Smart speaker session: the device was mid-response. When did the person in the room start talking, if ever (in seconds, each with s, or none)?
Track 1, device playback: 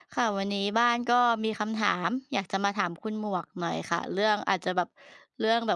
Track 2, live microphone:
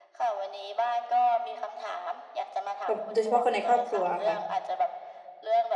2.9 s